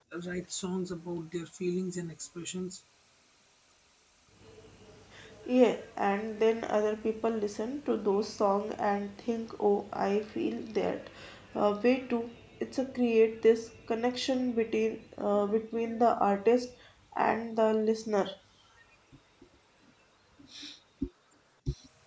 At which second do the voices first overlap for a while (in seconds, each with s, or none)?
none